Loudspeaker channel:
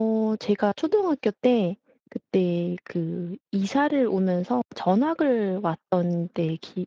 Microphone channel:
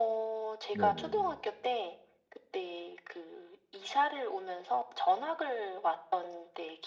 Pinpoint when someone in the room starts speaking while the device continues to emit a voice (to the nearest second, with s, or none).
1 s